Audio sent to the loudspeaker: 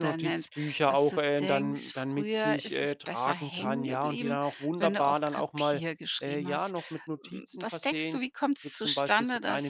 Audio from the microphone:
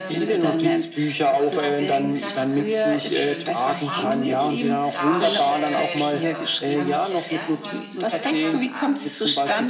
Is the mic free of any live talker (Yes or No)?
No